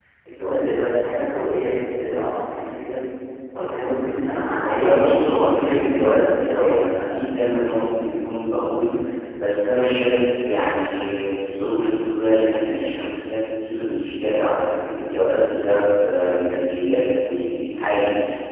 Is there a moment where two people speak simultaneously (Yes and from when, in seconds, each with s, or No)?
Yes, from 4.6 s